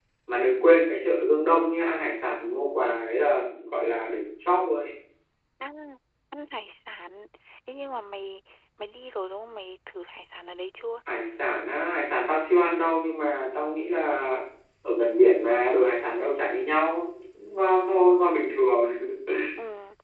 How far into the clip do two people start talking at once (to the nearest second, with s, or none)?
none